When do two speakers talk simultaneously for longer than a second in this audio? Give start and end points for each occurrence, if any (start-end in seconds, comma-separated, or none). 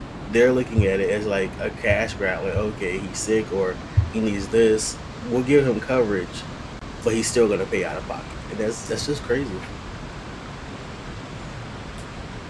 none